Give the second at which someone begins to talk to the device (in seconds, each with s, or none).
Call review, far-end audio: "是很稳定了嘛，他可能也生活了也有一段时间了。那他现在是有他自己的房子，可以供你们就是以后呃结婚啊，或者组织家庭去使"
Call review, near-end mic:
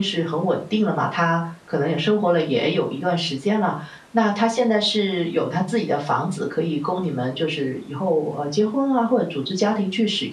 none